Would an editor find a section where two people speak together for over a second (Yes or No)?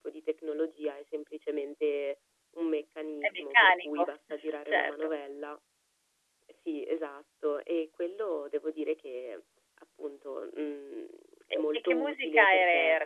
Yes